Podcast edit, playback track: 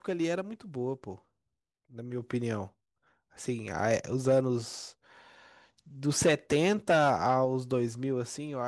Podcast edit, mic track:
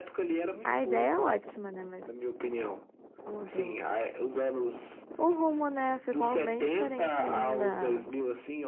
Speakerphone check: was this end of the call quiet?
No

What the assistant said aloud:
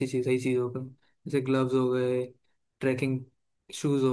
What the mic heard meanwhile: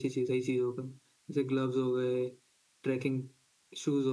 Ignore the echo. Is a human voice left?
No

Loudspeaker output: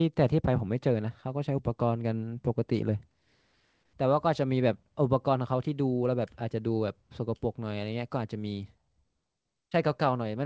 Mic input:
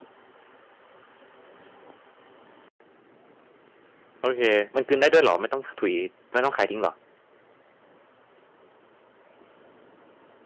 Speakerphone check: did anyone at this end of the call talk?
Yes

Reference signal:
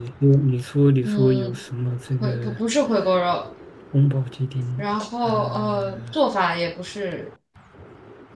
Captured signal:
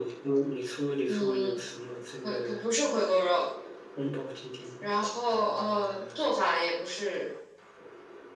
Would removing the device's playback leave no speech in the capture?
Yes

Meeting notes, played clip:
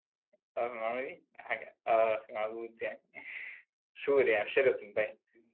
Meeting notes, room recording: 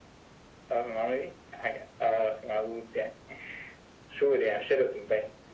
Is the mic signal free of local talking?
Yes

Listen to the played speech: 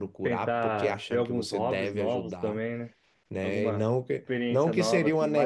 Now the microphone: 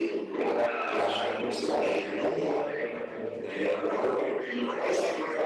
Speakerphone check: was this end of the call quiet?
No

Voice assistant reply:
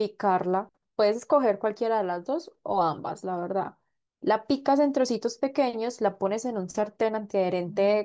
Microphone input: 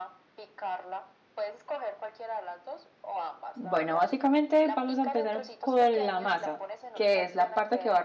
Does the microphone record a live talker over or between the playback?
Yes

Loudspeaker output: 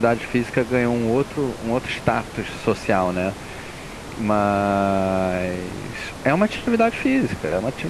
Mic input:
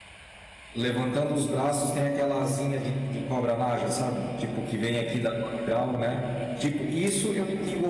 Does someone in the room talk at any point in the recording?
Yes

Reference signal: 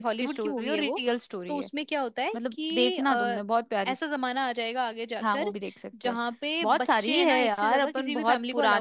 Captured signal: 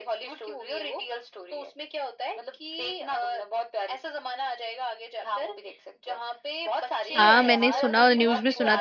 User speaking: Yes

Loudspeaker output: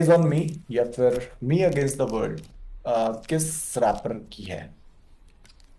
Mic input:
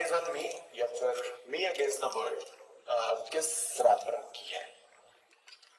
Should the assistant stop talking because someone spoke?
No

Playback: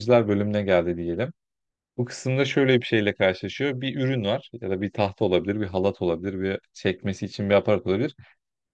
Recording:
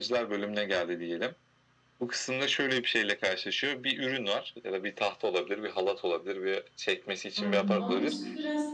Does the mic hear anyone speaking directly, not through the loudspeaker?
Yes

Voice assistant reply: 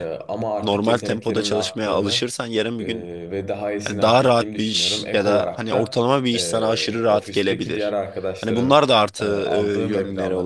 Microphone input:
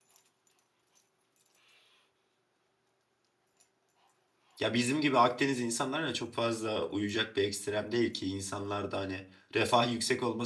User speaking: Yes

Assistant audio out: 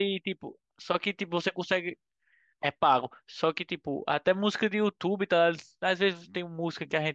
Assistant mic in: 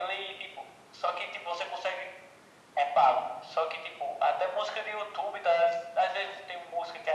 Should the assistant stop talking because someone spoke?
No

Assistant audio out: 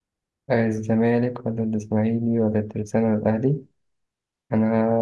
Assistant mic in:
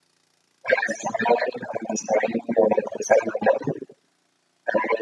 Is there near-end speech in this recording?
No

